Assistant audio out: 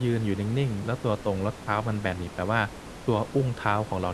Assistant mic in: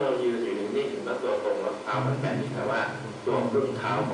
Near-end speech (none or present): present